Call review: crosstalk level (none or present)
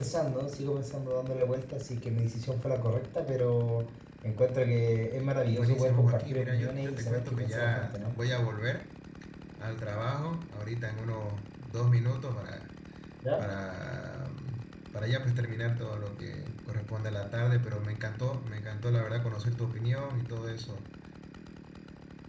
present